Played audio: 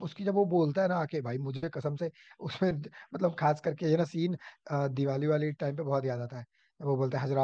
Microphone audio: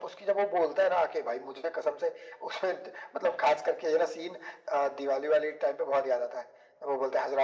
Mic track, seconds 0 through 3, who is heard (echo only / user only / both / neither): echo only